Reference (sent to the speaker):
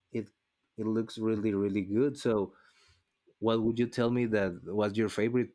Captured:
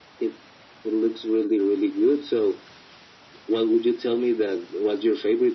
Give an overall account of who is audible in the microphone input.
echo only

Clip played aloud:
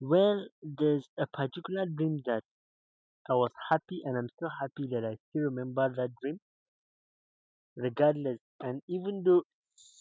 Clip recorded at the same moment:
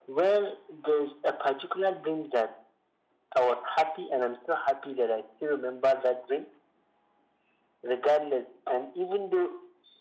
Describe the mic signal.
echo only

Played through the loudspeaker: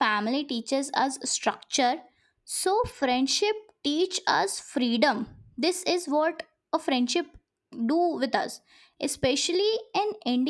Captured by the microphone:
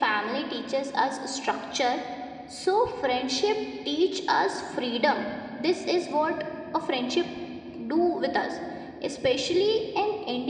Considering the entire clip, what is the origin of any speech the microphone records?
echo only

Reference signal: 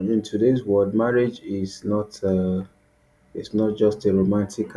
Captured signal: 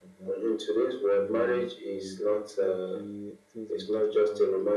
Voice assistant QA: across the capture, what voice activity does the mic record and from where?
both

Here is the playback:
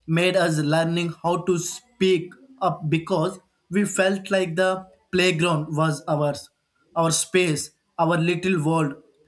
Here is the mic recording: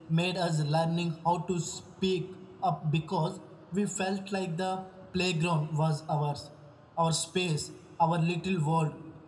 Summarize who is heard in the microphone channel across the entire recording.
echo only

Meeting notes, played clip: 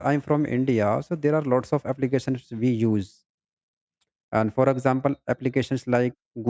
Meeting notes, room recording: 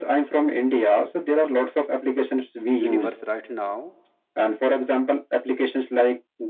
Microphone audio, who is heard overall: both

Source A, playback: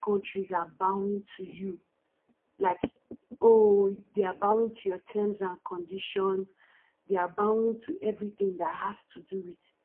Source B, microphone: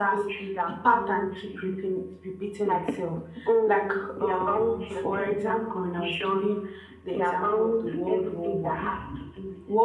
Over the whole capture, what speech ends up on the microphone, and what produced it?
both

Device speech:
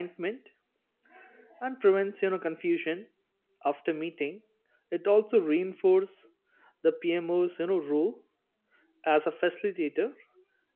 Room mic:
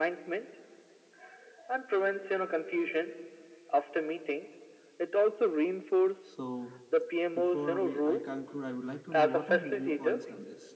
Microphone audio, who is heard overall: both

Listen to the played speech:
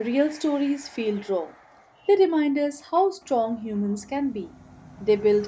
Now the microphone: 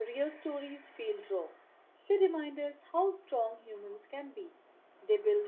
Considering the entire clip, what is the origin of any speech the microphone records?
echo only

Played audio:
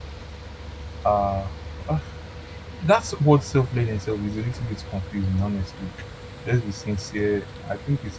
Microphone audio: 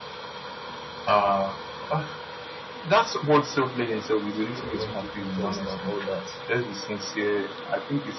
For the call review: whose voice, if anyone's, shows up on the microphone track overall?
both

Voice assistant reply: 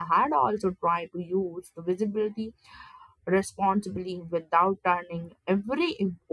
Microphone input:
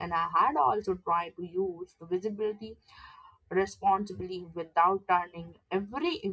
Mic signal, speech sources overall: echo only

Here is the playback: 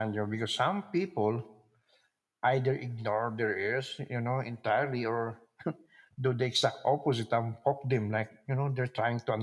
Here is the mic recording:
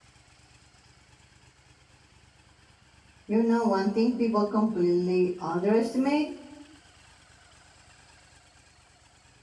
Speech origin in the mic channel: user only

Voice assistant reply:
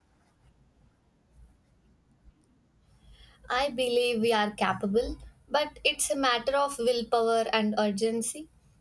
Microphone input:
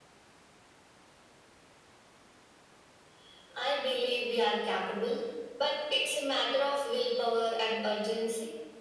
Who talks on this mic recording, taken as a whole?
echo only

